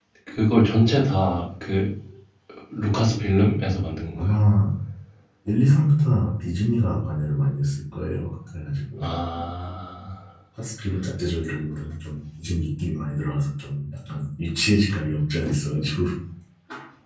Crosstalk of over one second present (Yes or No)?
No